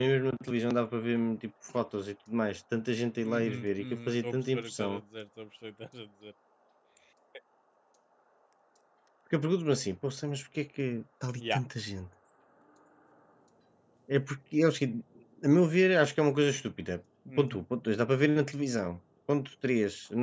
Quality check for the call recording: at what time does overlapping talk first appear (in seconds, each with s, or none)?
3.2 s